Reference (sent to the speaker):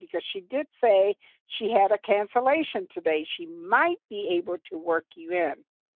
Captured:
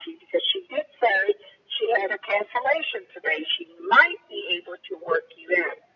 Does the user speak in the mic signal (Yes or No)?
No